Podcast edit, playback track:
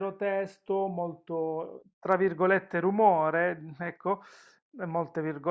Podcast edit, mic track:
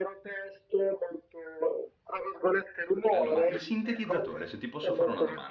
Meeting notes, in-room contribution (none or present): present